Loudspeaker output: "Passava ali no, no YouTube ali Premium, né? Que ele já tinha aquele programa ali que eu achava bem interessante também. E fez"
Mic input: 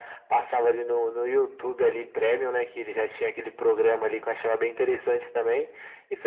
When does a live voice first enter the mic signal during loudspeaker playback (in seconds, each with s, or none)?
none